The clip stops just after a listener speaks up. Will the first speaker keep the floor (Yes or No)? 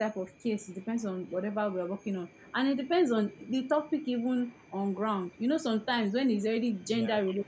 Yes